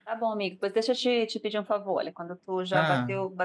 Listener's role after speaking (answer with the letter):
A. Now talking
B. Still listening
B